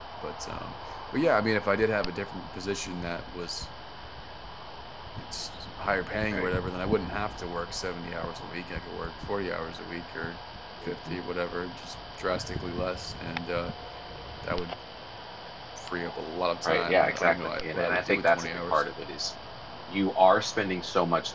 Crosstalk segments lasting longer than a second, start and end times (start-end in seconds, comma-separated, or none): 16.6-18.8